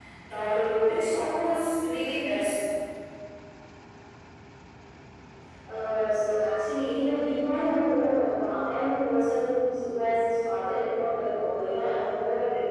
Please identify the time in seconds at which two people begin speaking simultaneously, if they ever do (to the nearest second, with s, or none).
none